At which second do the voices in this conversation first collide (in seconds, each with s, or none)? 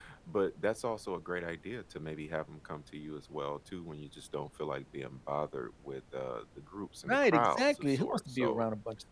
7.1 s